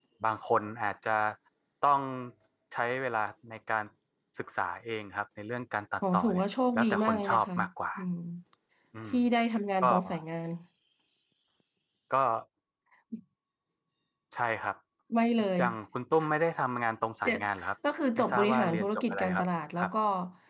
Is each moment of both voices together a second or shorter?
No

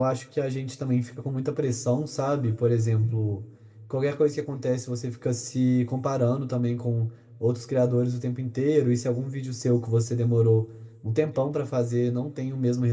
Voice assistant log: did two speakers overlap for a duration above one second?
No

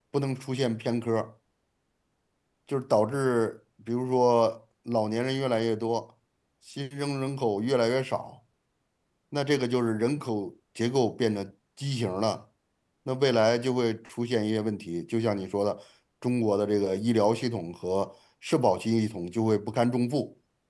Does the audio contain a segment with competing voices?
No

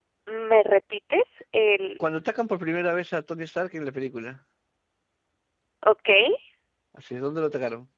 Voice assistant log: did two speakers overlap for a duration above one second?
No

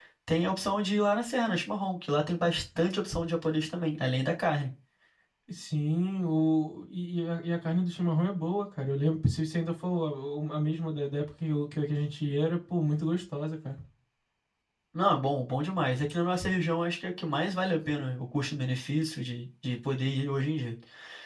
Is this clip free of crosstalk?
Yes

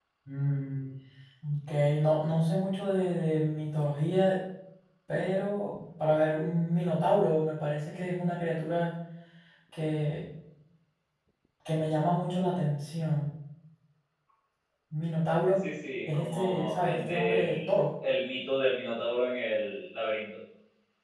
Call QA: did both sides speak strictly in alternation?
No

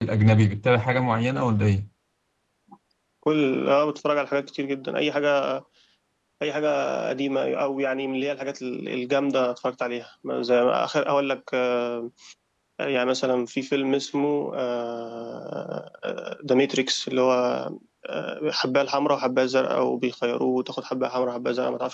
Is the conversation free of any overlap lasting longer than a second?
Yes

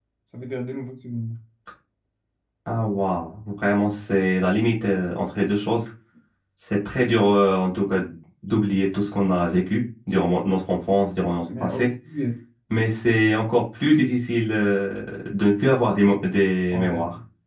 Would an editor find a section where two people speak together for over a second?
No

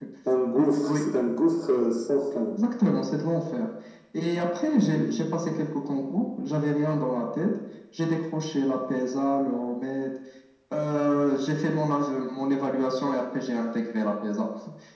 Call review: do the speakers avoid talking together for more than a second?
Yes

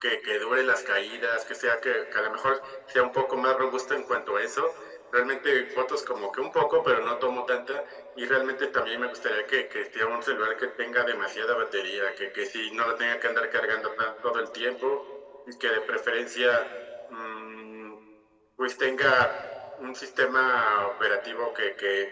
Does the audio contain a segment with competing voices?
No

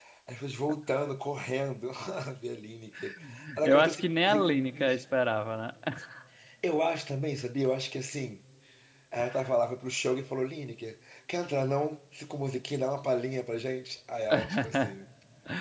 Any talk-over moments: Yes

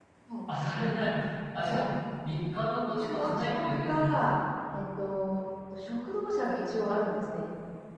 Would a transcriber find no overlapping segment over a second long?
No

